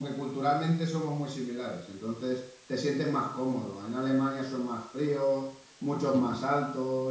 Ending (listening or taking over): listening